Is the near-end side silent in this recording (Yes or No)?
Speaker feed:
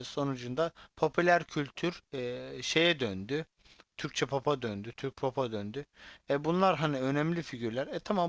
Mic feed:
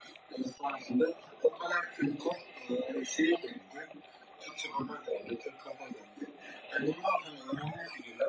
Yes